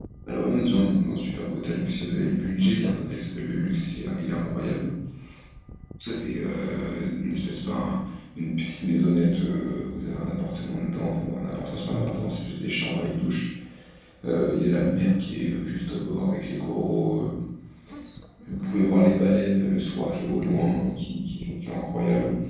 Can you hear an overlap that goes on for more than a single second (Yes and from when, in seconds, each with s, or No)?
No